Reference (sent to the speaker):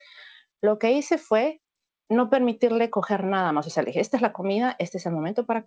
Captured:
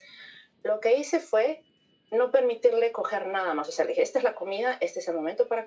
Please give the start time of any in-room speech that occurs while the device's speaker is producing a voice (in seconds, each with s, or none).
none